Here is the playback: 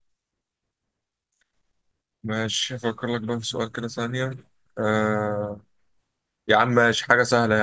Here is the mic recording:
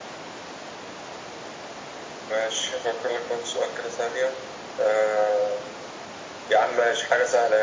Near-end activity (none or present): none